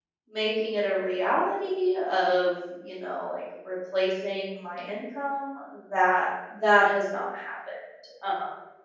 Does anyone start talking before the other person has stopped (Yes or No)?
No